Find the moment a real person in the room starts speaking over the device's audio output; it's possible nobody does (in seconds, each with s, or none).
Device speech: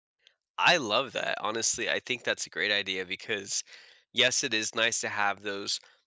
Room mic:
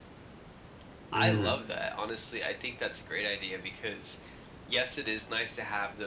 1.1 s